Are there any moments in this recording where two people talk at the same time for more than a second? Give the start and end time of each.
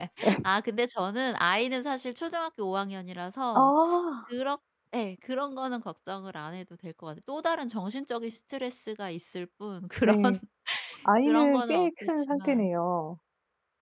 11.2-12.7

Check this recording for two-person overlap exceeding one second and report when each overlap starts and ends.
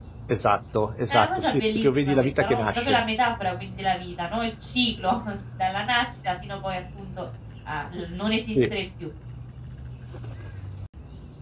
1.1-3.0

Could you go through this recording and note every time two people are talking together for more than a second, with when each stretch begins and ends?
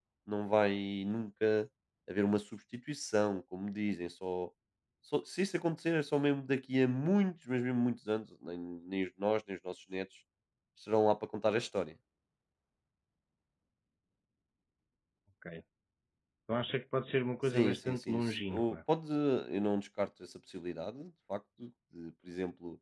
17.5-18.8

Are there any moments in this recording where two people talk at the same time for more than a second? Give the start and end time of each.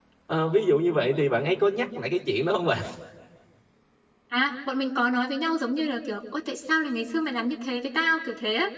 none

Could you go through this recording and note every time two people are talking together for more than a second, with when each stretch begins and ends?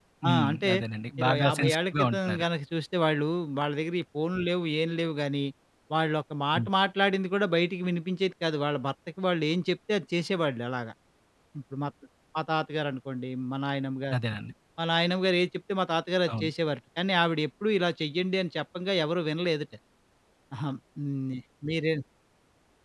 1.2-2.4

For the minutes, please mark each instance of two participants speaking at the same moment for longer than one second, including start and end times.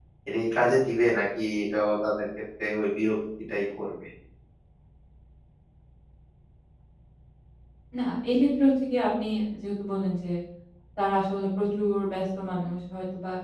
none

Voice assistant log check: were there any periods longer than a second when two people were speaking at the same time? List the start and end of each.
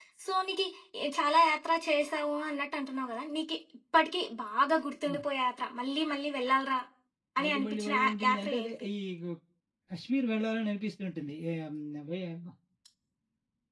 7.4-8.7

